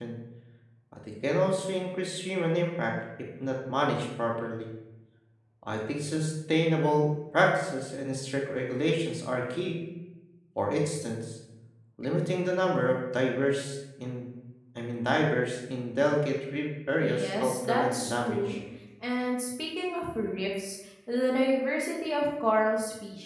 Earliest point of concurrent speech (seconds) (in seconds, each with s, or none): 17.0 s